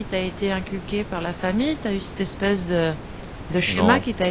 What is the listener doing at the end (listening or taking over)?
listening